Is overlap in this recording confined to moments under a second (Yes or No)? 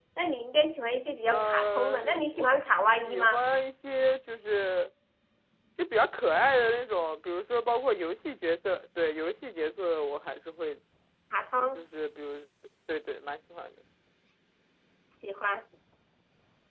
No